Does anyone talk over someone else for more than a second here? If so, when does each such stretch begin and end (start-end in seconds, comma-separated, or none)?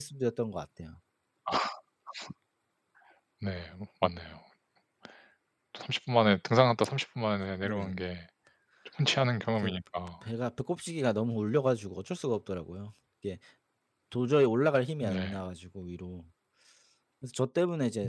none